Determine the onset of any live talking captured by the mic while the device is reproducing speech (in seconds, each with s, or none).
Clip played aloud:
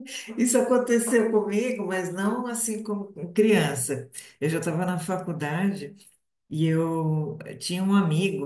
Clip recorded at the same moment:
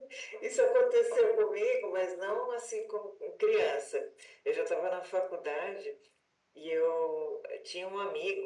none